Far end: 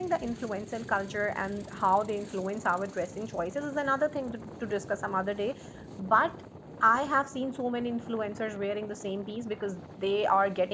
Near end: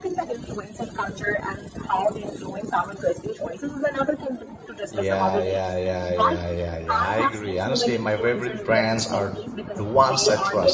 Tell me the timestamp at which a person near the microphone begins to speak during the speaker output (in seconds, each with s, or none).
4.9 s